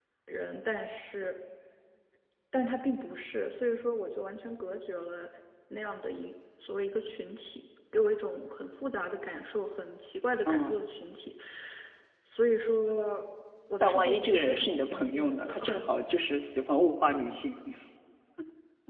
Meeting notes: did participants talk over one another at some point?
Yes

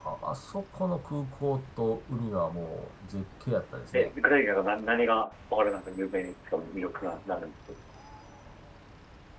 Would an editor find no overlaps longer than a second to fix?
Yes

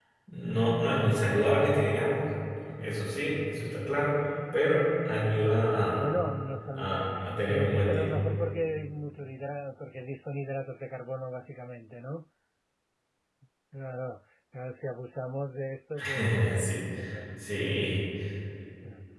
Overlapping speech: Yes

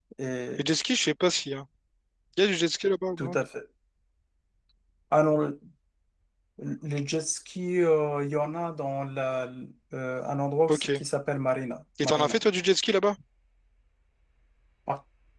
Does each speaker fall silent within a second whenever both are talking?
Yes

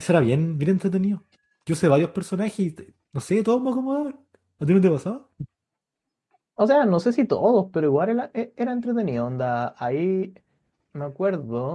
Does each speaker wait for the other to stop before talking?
Yes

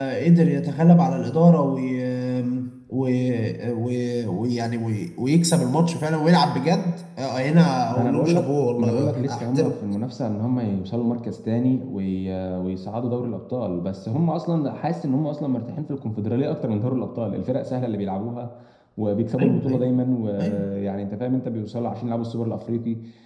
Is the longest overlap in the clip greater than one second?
Yes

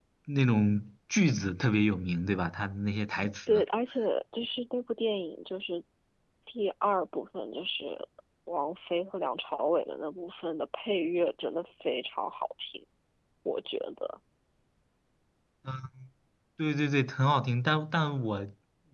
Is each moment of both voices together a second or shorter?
Yes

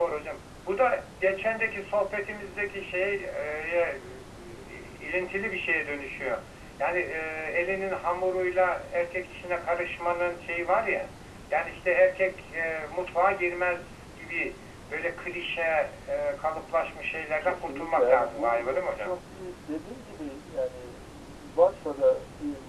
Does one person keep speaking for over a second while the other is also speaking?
Yes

